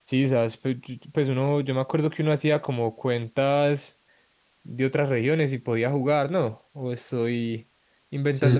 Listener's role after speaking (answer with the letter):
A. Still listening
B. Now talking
B